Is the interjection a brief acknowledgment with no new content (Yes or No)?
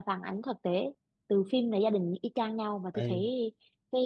Yes